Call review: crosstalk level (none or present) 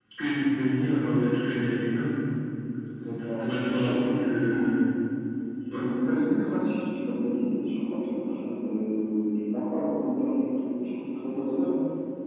present